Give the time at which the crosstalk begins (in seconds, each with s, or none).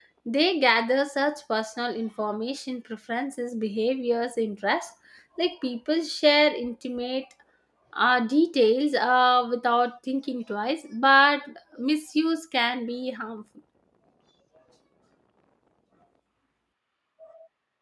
none